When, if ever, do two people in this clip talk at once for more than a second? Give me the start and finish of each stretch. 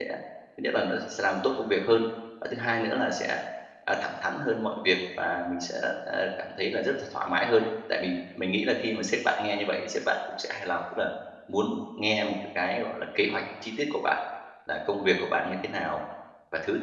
none

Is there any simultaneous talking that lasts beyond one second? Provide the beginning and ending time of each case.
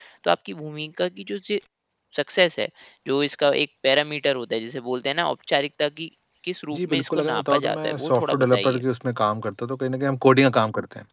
6.7-8.8

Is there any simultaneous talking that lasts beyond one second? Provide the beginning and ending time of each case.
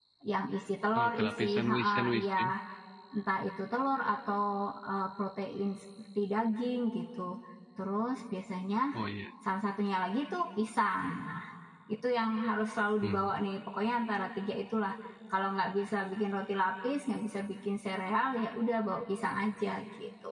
0.9-2.5

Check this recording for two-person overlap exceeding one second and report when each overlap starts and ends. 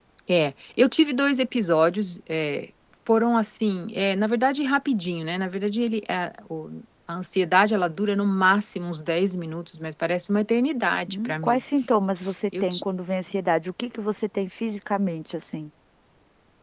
none

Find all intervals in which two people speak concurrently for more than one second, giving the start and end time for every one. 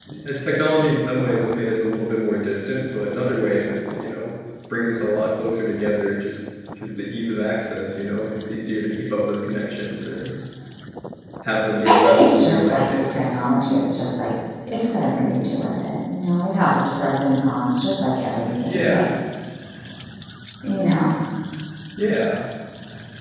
11.8-13.2

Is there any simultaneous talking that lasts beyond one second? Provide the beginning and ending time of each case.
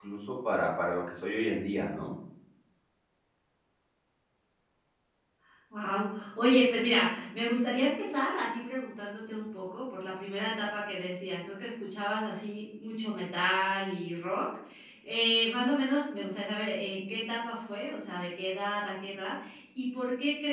none

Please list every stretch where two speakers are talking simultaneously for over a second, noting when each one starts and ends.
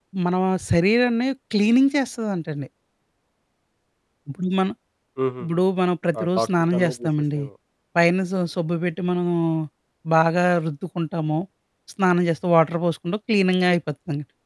6.2-7.4

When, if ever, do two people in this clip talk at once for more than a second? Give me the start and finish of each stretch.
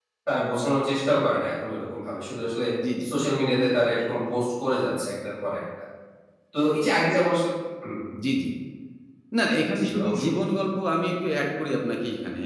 none

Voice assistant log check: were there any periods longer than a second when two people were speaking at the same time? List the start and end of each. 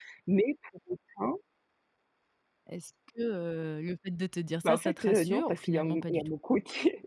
4.6-6.3

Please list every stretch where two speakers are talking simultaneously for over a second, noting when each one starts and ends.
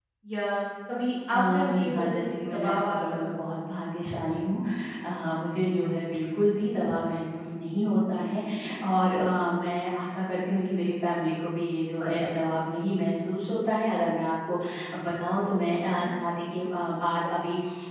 1.3-3.4

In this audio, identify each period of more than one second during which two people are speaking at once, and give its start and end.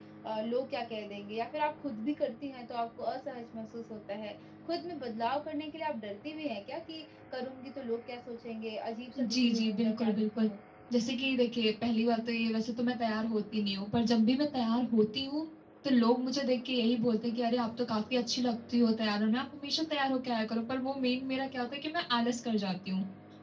9.2-10.5

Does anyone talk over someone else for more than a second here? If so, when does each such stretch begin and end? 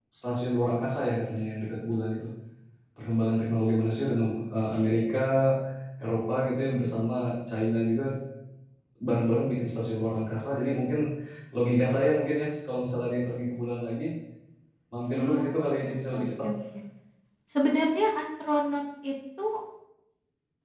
15.1-16.5

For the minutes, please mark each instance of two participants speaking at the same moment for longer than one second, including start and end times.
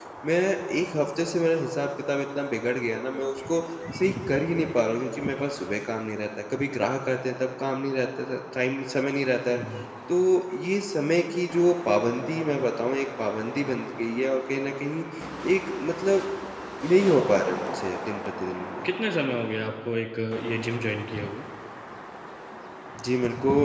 none

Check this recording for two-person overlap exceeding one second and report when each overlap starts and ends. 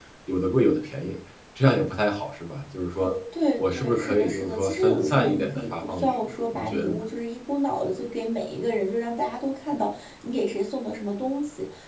3.6-7.0

